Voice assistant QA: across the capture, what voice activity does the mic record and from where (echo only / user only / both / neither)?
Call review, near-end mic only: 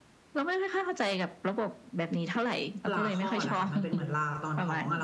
both